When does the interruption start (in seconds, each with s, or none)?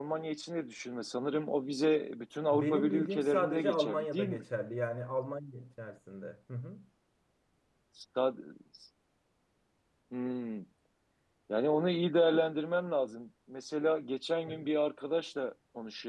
2.5 s